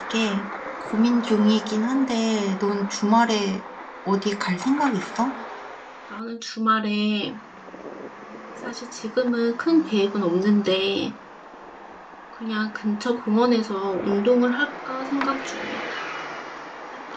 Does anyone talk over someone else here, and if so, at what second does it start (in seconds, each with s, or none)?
none